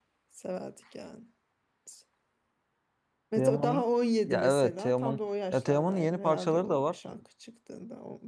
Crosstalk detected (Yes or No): Yes